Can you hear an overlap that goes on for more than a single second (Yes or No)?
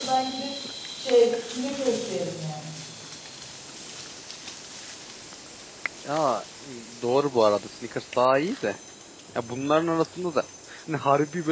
No